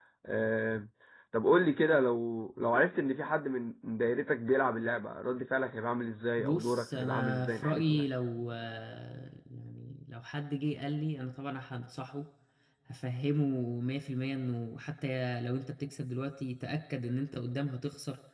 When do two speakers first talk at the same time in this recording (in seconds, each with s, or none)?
6.4 s